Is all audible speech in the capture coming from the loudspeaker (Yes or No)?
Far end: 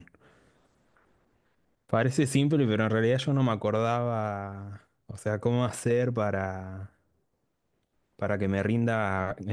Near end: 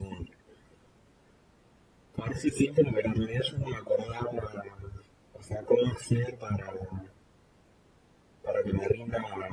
Yes